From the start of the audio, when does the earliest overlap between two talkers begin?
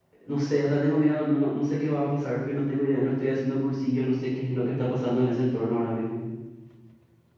none

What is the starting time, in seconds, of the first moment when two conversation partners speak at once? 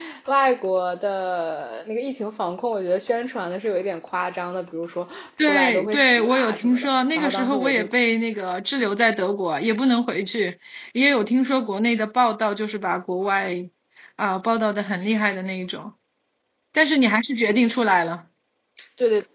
5.4 s

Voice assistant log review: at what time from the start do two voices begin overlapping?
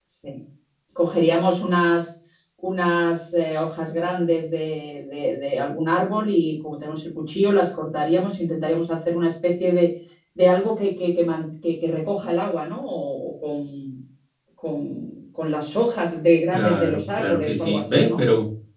16.5 s

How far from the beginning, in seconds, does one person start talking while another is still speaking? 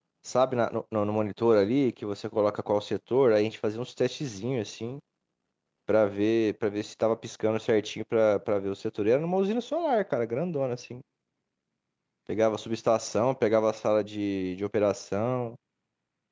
none

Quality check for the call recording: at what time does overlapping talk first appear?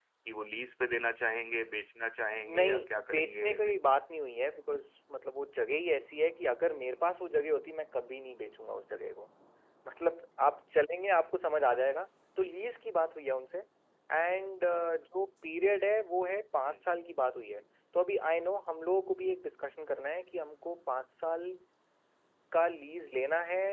2.5 s

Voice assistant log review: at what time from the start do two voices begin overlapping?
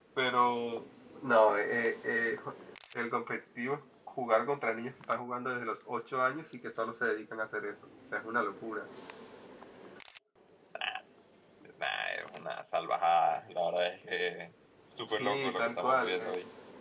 15.1 s

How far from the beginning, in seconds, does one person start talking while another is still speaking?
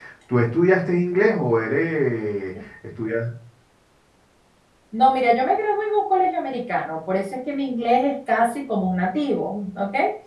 none

